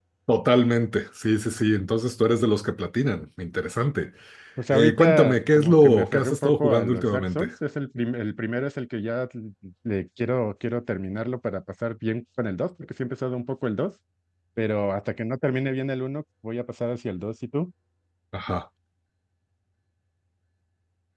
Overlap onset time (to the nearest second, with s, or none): 5 s